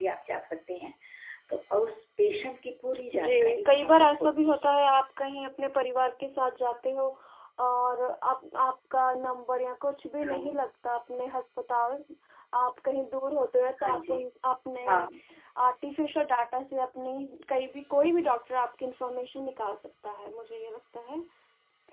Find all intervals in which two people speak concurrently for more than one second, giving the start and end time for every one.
3.1-4.7

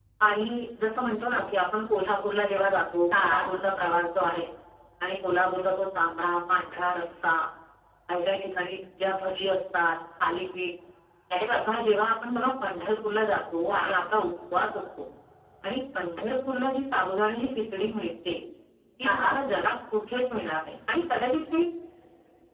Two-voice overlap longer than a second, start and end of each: none

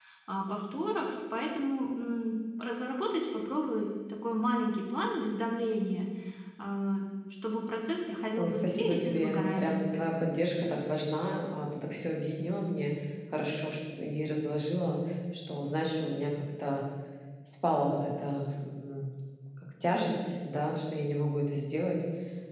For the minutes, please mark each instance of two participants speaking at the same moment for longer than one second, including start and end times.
8.4-9.8

